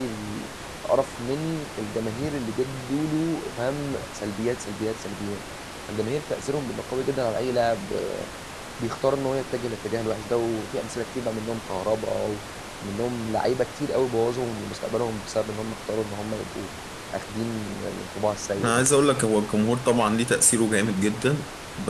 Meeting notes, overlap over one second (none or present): none